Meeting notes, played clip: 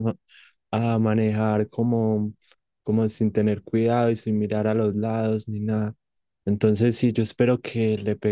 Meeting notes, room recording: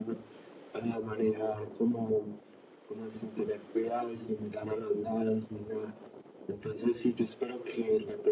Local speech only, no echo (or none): none